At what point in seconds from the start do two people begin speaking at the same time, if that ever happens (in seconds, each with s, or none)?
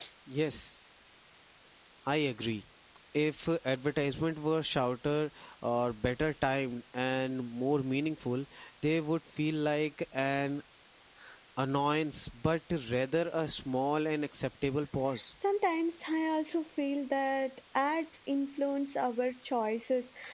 none